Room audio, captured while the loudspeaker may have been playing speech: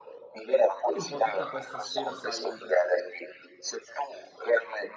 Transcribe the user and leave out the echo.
quindi un po' tutta questa sfera, sai,

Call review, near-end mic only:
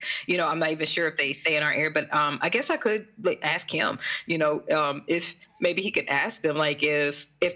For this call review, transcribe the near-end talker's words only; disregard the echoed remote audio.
none

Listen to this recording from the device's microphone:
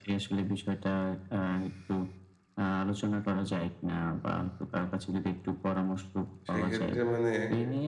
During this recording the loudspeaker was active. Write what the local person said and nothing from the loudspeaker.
সেক্ষেত্রে মানে

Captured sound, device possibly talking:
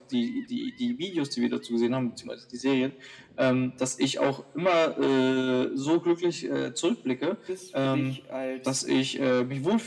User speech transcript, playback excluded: Ist für dich als

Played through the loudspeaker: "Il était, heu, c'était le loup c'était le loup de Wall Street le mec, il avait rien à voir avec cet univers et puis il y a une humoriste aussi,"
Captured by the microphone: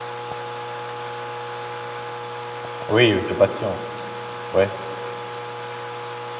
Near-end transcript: Oui, de passion. Ouais,

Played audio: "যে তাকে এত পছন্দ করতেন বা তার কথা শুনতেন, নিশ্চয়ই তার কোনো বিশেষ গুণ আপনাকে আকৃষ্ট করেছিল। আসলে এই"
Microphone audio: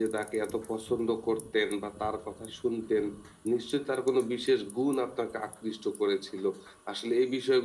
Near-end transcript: none

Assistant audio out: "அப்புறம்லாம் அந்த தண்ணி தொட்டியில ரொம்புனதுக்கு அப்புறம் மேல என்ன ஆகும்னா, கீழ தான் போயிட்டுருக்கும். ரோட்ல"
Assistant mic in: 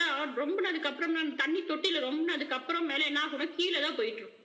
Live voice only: none

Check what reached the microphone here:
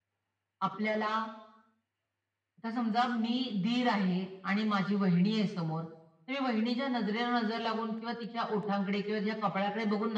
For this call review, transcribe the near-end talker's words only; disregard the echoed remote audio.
none

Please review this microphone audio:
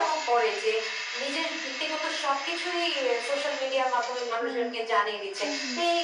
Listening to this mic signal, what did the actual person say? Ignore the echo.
হুম, হুম, হুম।

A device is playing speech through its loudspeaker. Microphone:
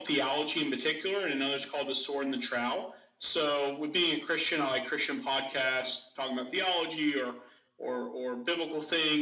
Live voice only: none

